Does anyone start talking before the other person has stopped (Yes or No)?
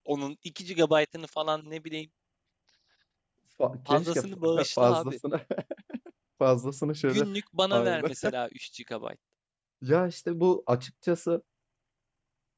Yes